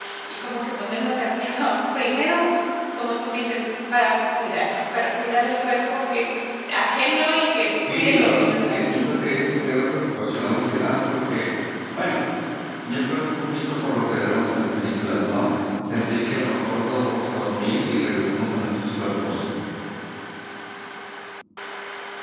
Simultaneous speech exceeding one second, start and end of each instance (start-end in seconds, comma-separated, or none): 7.9-9.1